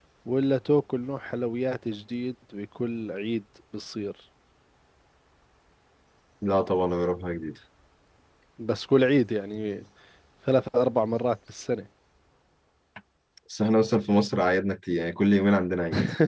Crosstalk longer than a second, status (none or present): none